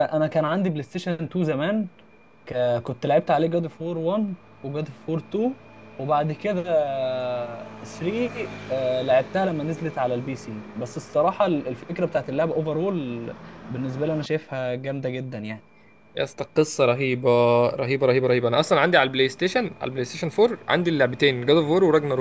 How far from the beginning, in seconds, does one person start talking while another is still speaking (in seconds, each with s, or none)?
none